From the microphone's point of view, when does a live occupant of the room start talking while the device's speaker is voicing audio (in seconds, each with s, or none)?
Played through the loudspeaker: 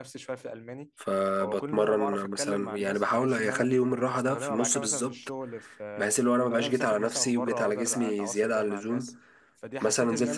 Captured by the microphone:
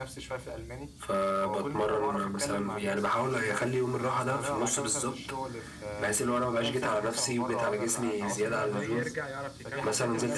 8.2 s